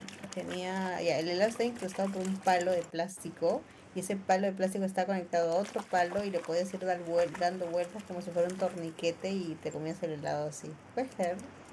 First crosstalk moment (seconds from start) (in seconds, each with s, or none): none